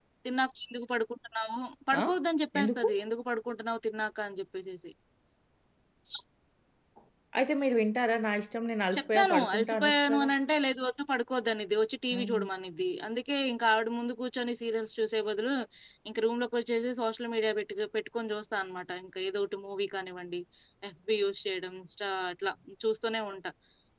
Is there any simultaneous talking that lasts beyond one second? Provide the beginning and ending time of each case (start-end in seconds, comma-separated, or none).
8.9-10.3